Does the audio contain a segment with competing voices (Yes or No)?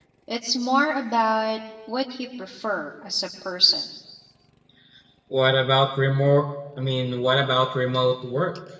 No